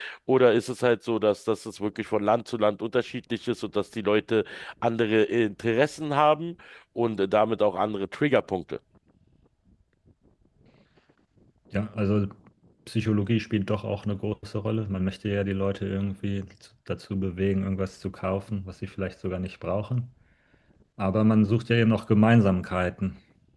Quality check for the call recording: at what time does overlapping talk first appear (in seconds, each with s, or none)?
none